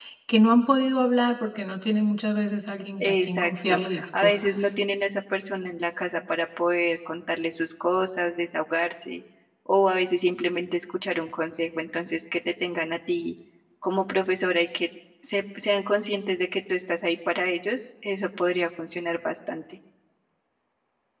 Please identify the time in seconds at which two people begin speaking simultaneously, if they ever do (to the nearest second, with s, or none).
3 s